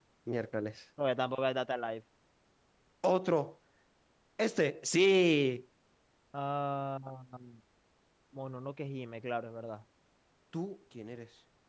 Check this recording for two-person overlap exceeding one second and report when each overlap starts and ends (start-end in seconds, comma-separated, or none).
none